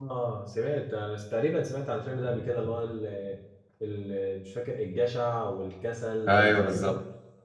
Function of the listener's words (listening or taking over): taking over